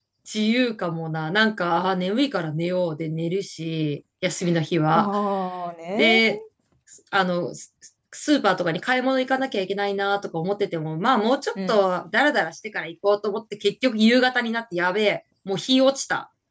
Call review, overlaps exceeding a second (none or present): none